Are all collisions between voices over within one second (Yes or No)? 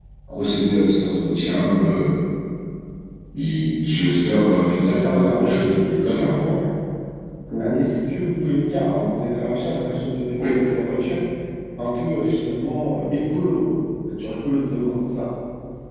No